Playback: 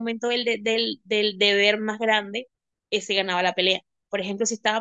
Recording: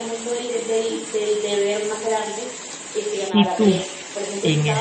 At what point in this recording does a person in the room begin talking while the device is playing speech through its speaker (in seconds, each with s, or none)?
3.1 s